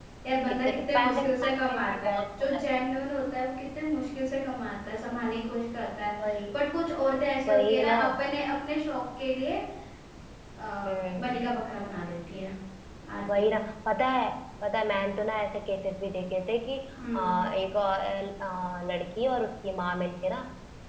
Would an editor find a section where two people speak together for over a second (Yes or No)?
Yes